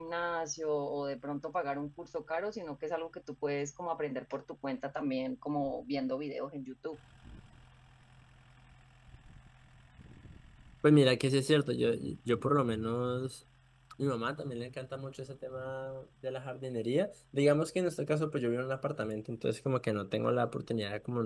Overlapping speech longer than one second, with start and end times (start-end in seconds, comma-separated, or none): none